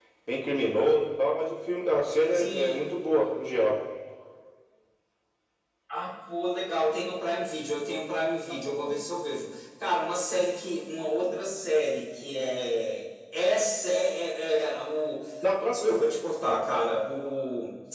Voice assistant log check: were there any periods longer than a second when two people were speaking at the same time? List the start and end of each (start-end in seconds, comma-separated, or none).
none